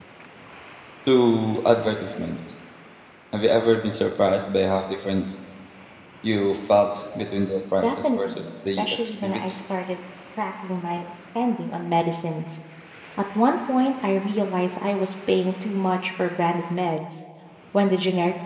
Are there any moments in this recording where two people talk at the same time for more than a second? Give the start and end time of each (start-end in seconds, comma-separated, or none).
7.8-9.4